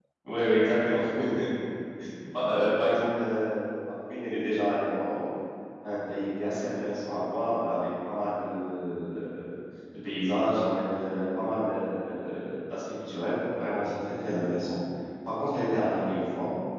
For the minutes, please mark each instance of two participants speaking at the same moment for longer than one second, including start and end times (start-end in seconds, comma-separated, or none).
none